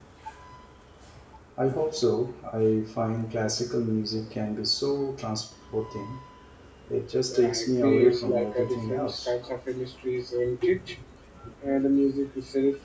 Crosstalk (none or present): present